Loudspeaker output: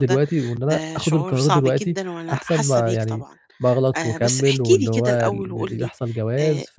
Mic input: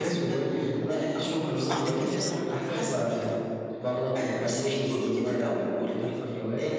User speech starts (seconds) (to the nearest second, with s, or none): 2 s